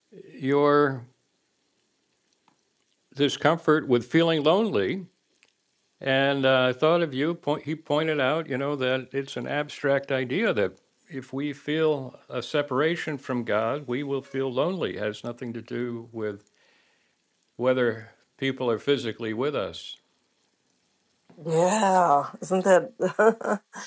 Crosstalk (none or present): none